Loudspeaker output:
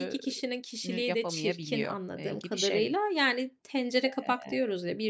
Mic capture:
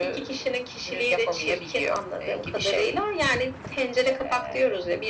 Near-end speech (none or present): none